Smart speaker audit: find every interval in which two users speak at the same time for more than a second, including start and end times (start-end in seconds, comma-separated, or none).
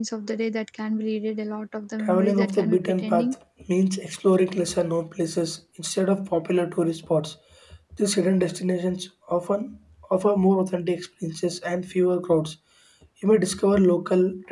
2.0-3.3